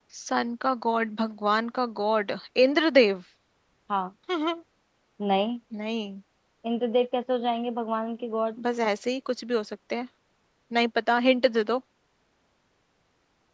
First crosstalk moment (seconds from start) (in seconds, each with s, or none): none